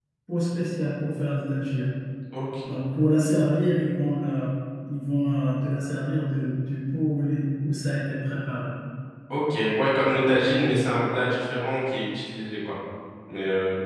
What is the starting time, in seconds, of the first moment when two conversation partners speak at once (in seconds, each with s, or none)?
none